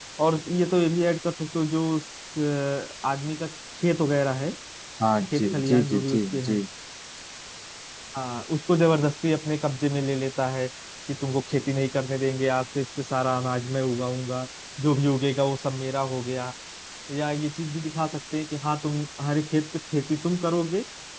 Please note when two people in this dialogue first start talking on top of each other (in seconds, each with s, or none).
5.3 s